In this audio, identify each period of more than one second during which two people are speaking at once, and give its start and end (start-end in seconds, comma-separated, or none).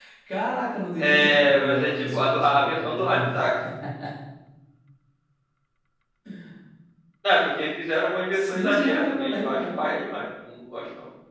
1.0-3.2, 8.3-9.9